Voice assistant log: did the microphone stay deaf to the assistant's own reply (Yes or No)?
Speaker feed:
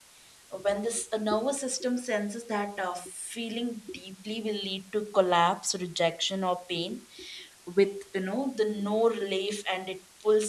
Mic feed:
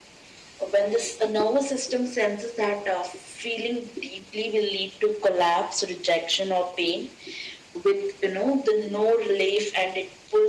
No